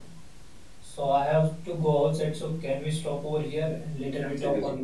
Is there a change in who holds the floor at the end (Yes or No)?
Yes